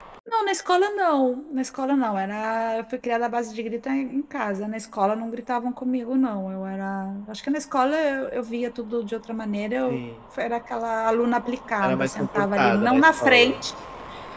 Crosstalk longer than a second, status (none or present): present